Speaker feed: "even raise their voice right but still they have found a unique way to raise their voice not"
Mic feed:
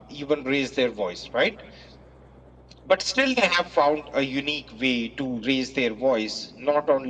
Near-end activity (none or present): none